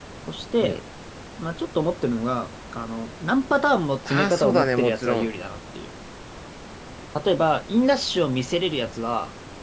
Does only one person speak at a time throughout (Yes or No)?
No